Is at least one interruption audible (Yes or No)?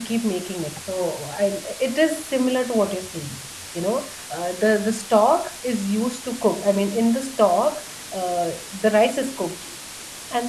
No